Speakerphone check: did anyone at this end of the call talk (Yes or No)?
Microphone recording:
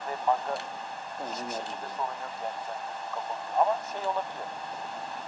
Yes